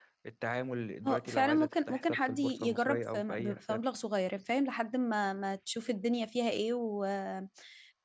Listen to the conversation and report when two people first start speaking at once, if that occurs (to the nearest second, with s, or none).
1 s